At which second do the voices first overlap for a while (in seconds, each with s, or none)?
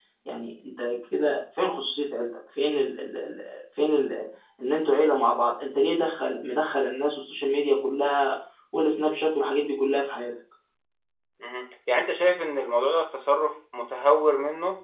none